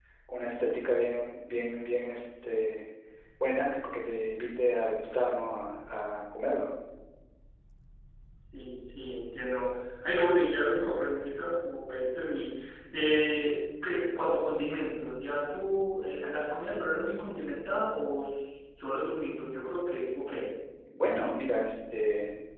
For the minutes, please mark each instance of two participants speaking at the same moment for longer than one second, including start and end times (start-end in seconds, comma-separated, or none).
none